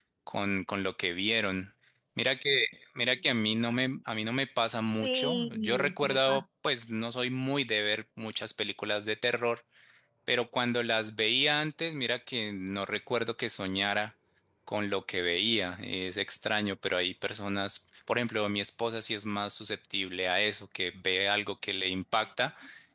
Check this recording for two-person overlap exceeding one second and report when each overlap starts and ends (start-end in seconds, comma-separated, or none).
5.0-6.4